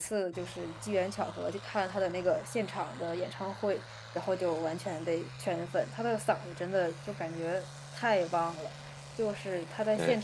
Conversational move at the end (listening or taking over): listening